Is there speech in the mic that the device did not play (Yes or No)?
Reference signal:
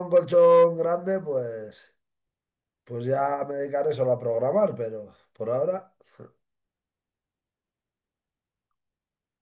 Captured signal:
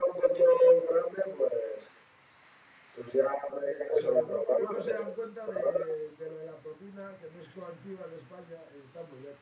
Yes